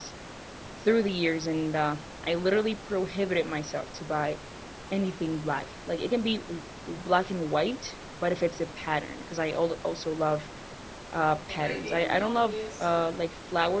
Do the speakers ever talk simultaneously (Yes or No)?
Yes